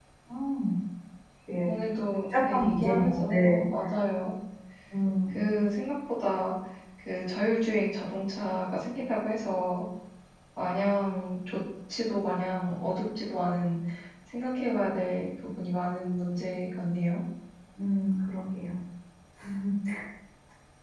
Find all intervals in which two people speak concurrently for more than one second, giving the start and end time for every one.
2.4-3.6

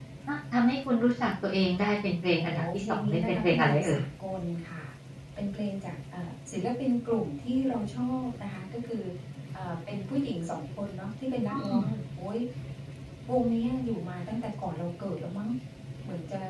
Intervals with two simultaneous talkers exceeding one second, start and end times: 2.4-4.0

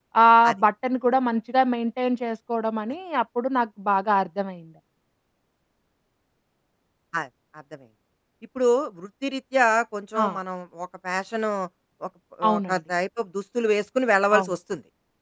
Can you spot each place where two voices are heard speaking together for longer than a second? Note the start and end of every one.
none

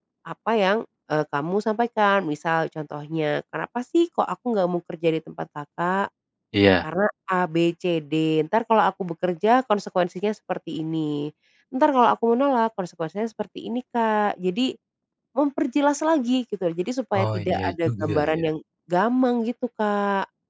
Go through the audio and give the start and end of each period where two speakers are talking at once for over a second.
17.2-18.4

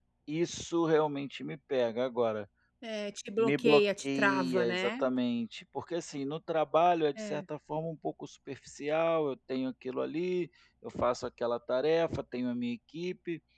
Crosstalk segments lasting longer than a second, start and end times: 3.4-4.9

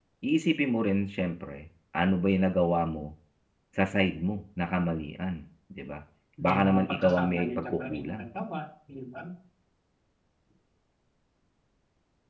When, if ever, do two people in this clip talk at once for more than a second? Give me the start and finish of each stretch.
6.4-8.2

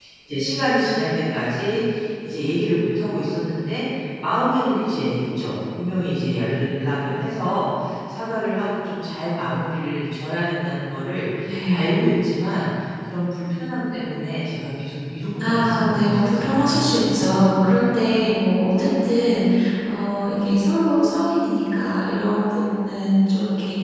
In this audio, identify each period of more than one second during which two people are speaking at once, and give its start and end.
15.4-17.4

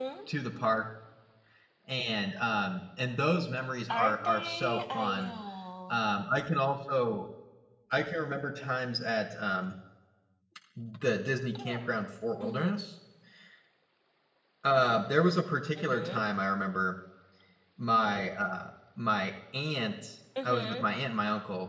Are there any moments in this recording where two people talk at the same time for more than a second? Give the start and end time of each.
3.9-5.3

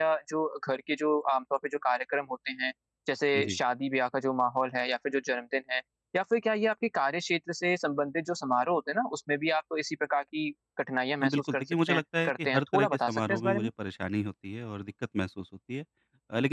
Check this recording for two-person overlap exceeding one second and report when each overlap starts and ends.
11.2-13.7

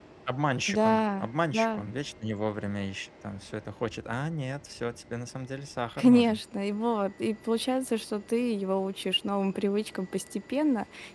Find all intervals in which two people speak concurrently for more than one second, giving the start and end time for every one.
none

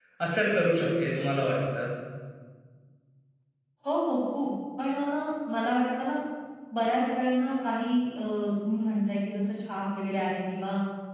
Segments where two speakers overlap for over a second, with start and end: none

